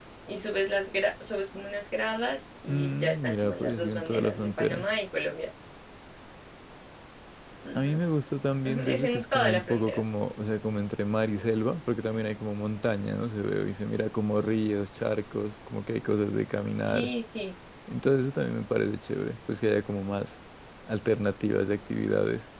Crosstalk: present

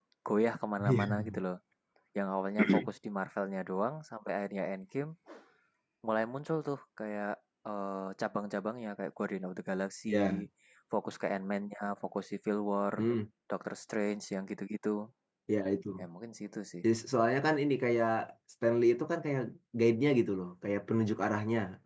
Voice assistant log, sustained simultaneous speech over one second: none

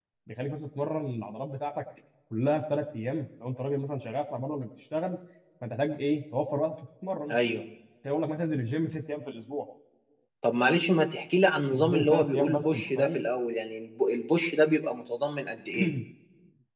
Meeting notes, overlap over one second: present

